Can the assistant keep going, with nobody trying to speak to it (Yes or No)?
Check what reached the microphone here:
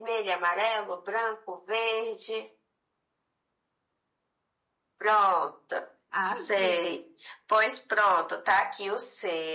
No